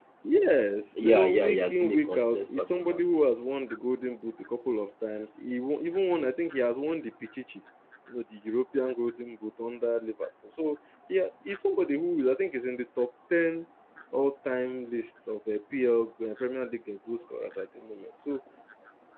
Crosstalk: present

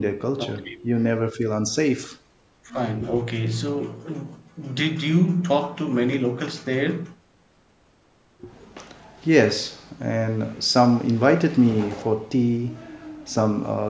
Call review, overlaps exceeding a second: none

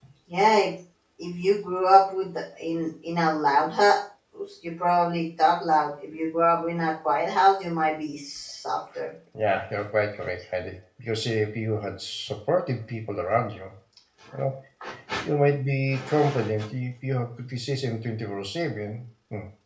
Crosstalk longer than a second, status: none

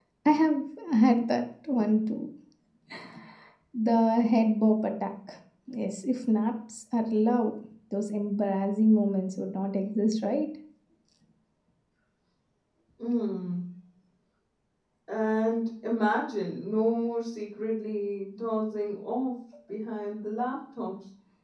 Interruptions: none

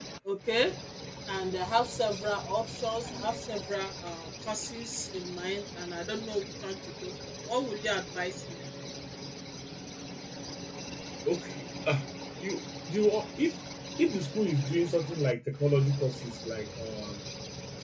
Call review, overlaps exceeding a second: none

